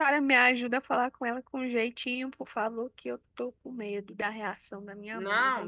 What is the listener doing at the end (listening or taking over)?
taking over